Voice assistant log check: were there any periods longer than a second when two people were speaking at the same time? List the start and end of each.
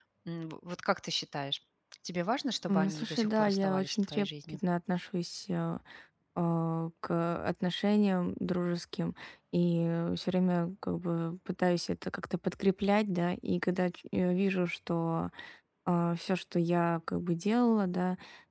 2.7-4.6

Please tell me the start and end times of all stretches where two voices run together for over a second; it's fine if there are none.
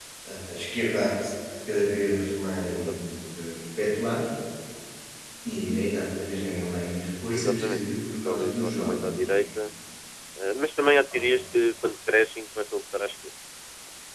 7.3-9.4

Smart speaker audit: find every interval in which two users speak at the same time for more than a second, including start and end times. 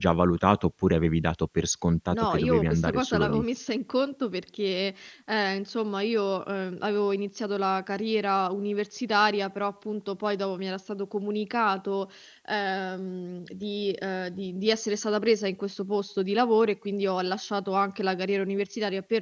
2.1-3.5

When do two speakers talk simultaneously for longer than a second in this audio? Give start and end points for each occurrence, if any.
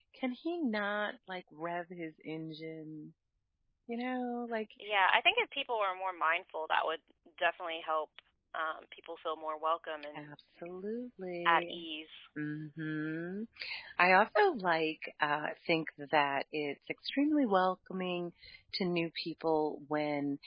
none

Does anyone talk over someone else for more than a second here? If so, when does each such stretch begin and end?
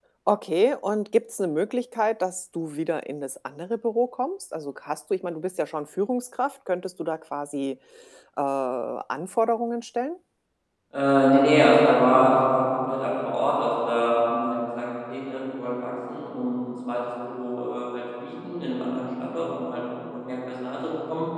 none

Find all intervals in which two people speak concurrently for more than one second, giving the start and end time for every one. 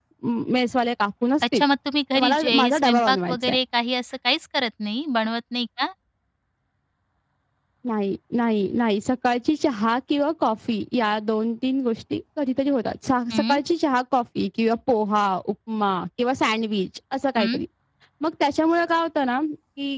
2.1-3.6

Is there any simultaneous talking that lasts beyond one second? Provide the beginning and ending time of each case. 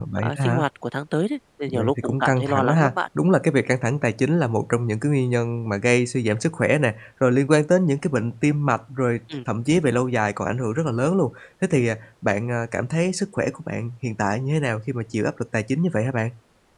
1.7-2.9

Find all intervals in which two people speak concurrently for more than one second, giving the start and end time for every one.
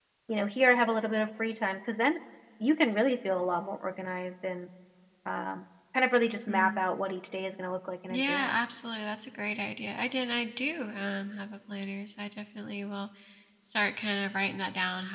none

